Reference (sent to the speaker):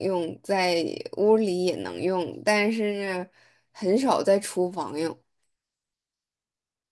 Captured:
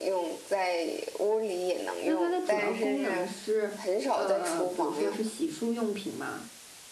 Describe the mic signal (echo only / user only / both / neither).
both